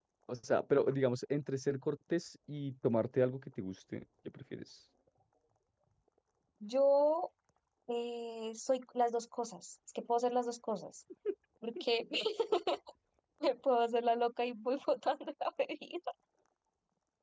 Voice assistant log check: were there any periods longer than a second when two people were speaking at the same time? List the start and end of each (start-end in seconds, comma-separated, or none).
none